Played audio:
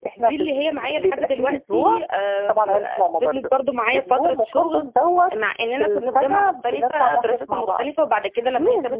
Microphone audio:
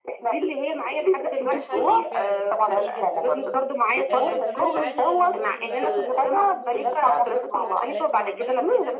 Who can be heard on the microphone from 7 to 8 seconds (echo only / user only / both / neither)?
both